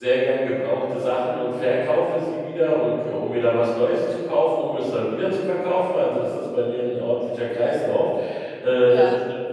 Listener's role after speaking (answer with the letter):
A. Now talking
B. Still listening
B